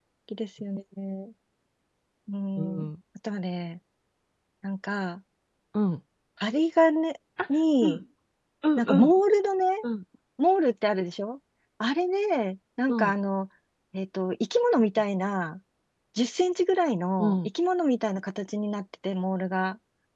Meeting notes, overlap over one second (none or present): none